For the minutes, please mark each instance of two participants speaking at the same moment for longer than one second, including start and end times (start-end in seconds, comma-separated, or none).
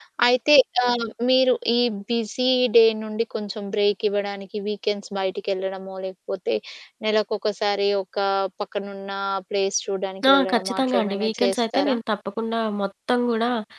10.3-12.0